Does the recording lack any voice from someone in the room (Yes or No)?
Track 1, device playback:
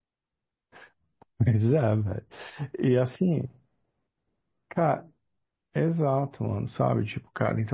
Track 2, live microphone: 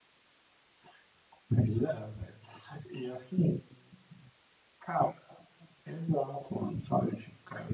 Yes